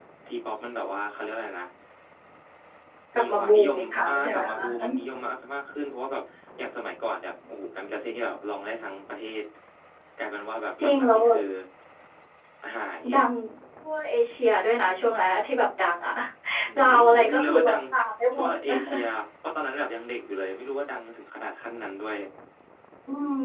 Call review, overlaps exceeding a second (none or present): present